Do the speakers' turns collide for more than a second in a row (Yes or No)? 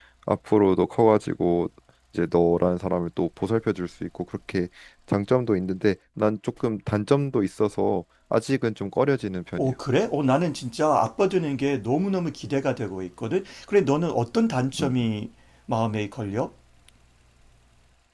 No